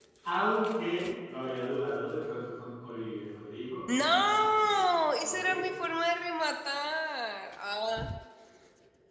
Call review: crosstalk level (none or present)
present